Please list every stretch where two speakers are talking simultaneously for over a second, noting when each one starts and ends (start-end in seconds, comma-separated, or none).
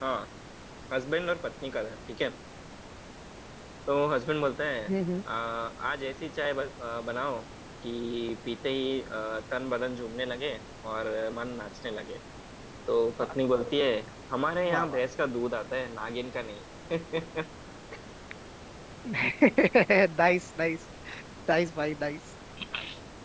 none